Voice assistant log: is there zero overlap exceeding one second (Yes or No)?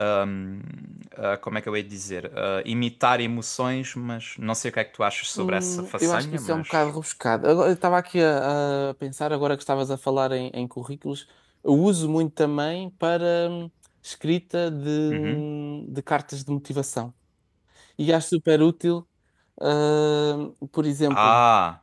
No